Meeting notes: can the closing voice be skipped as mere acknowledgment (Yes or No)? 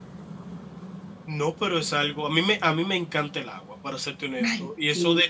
Yes